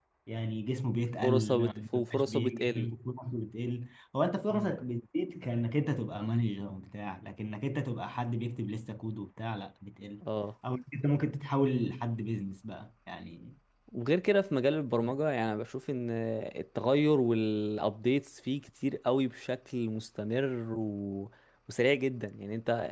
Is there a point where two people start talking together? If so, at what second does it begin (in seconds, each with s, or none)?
1.2 s